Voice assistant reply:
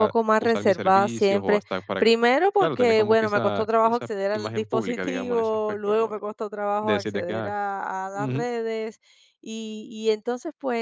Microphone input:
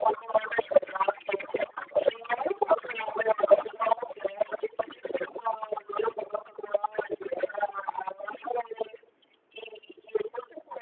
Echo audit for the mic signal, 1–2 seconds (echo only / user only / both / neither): echo only